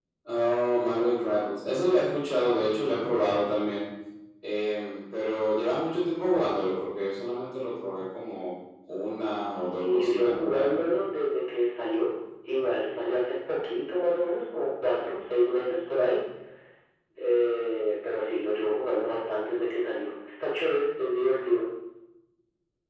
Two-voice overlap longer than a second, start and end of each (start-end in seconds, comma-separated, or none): 9.5-10.8